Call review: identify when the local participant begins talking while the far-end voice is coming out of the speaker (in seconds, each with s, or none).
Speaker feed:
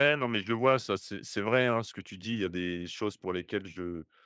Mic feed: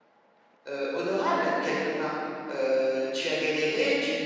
0.7 s